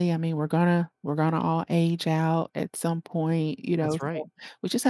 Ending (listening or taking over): listening